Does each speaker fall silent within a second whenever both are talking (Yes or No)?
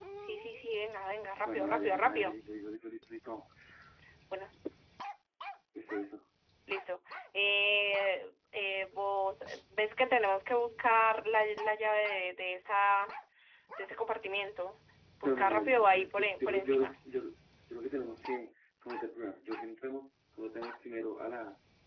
No